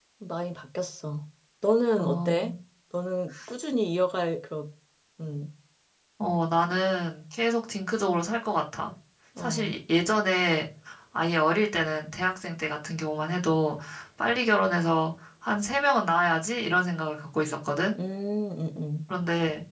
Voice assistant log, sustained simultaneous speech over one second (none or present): none